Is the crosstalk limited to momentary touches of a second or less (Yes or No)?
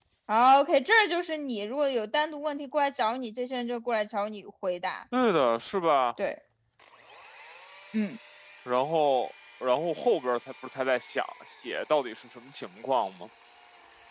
Yes